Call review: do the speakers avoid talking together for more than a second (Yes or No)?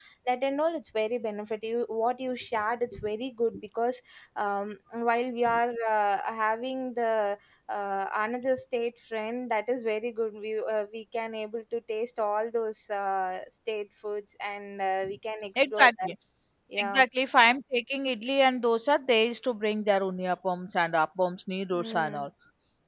Yes